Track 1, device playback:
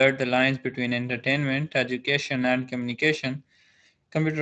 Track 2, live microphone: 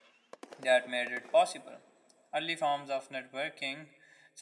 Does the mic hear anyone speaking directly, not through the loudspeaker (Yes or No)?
Yes